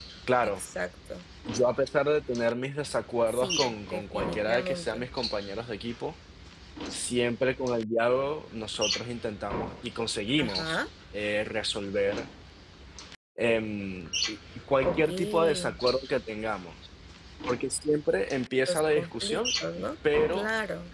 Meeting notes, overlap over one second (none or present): present